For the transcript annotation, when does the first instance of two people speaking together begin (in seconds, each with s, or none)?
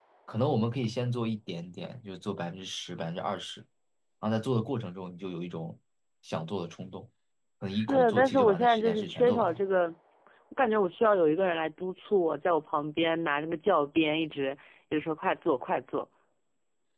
7.7 s